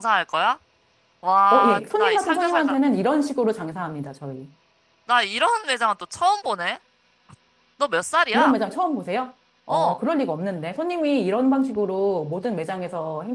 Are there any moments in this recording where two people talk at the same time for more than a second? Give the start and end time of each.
1.5-2.8

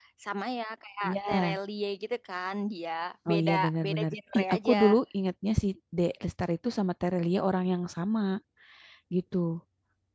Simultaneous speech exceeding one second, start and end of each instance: 3.3-4.8

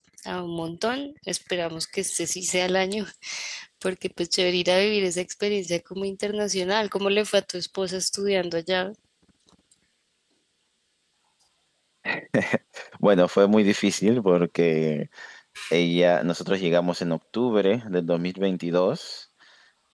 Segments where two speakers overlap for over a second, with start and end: none

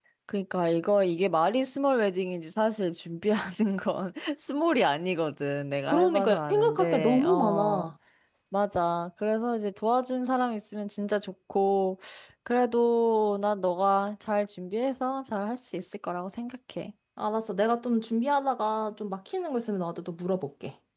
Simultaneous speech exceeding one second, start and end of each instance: 5.9-7.9

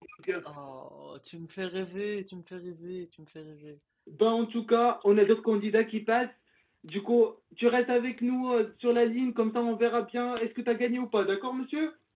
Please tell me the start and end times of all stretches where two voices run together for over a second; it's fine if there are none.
none

